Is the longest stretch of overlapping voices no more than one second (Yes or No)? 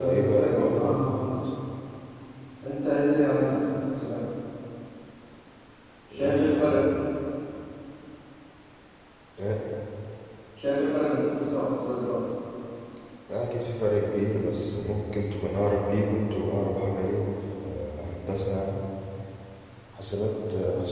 No